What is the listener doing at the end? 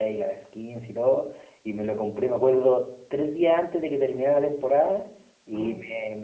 listening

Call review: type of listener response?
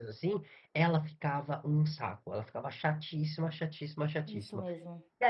listening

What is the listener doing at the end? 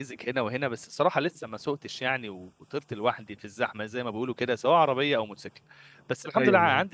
listening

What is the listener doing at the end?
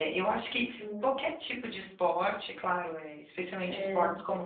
listening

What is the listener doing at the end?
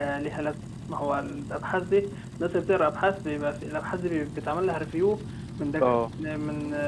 listening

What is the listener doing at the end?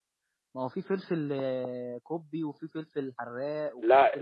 taking over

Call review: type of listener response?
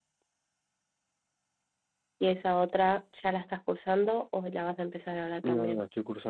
taking over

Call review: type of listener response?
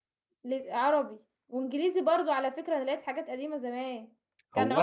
listening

